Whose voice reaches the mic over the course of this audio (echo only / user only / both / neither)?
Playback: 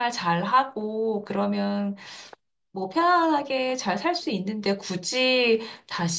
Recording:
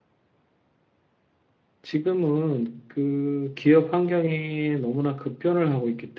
user only